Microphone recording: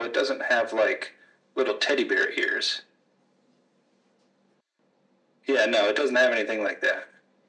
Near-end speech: none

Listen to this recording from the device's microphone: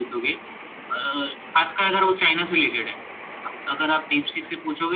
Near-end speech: none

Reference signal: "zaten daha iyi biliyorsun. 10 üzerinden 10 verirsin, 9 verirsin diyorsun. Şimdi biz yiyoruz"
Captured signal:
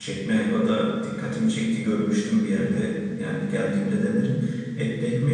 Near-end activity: present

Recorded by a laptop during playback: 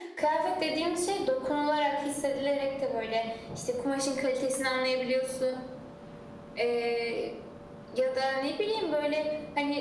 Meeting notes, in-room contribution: none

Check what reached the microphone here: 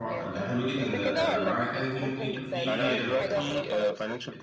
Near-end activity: present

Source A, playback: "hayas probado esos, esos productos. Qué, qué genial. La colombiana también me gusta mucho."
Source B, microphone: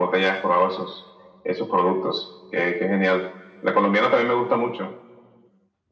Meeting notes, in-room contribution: none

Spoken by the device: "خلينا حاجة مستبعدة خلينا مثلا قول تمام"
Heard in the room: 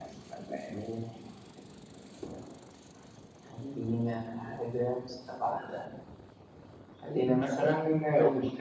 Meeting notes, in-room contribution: none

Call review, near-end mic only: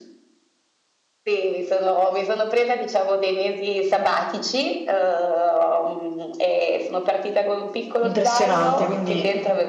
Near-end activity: present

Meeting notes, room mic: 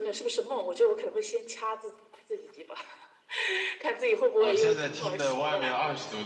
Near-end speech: present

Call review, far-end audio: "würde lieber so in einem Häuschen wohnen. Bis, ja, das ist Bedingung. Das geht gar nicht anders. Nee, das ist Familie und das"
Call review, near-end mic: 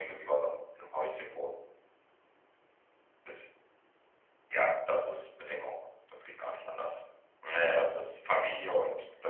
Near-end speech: none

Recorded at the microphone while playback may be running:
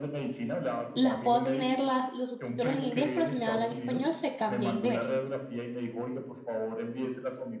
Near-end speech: present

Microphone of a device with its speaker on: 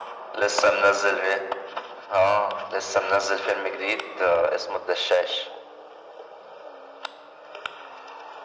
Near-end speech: none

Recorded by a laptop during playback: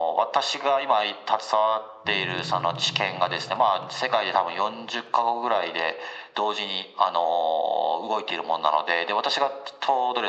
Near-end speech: present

